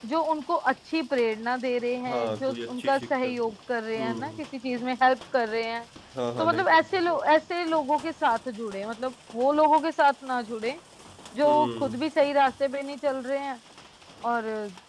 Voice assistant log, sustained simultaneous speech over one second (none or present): present